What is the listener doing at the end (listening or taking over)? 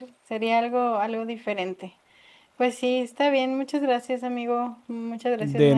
taking over